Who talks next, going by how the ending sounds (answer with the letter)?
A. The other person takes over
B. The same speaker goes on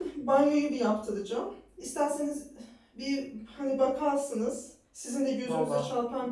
B